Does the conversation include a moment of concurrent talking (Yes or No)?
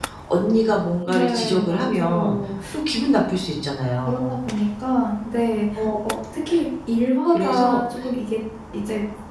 Yes